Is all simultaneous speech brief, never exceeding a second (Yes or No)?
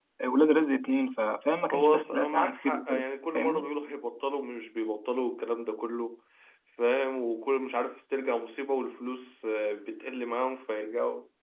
No